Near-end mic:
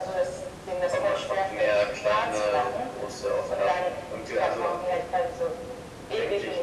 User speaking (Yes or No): No